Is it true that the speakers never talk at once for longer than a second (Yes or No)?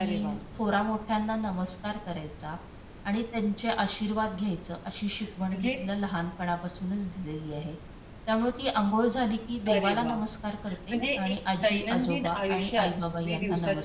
No